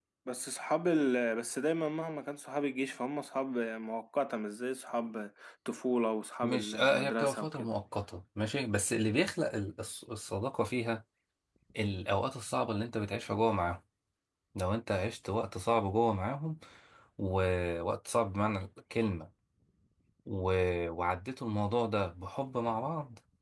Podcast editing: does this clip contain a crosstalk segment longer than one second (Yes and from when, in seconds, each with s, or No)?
Yes, from 6.4 s